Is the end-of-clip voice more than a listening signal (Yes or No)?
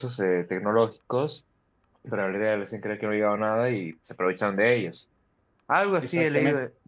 No